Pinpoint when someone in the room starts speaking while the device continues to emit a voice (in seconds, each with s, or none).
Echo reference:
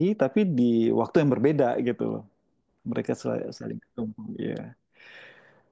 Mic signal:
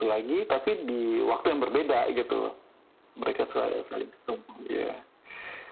none